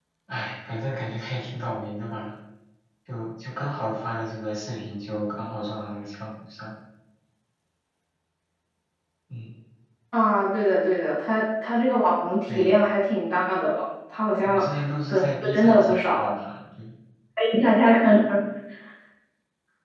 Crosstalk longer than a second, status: present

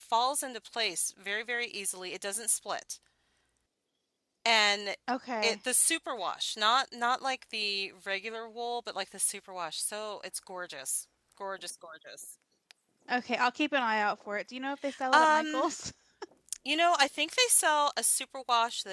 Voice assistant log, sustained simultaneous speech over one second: none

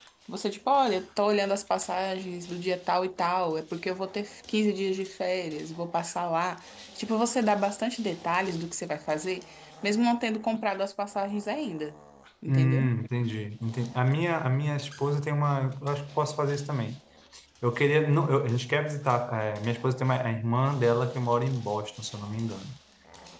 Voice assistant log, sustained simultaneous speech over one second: none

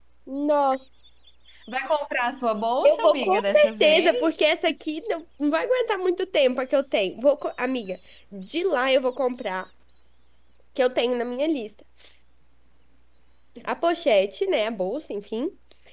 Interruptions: present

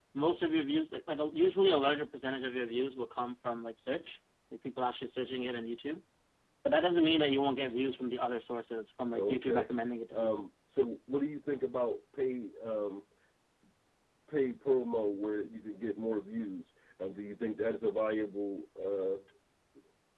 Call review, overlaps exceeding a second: none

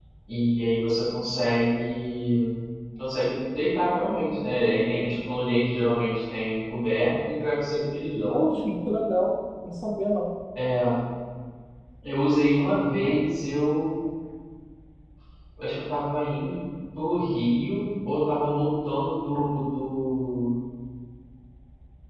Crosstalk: none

